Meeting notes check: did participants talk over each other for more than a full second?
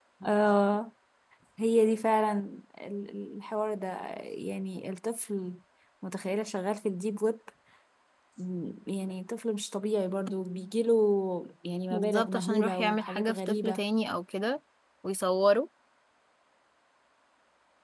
Yes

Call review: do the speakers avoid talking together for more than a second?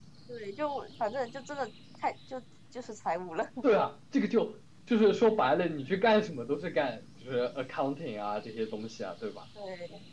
Yes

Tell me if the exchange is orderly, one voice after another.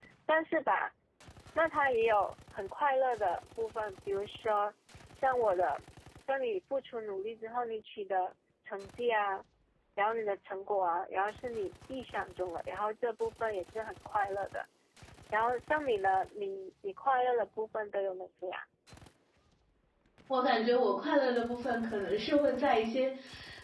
Yes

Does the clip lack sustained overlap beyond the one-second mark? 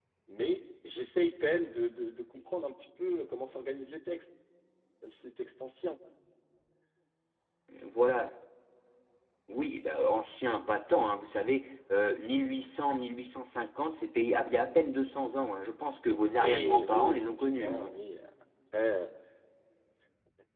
No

